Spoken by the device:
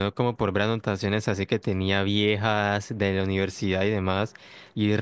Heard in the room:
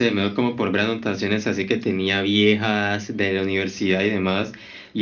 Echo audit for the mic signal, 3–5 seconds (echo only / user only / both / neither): echo only